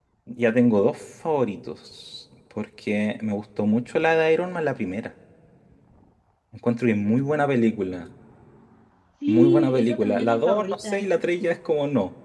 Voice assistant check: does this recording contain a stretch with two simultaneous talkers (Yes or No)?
Yes